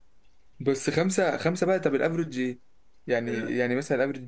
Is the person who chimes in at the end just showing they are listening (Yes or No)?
Yes